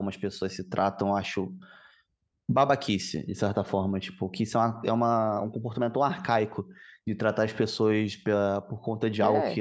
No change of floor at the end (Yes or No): Yes